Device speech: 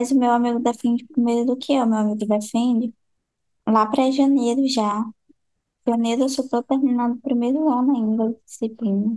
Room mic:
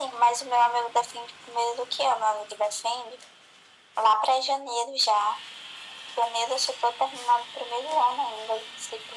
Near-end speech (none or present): none